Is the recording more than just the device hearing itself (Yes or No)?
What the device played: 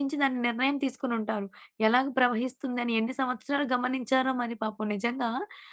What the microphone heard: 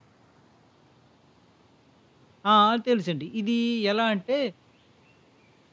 Yes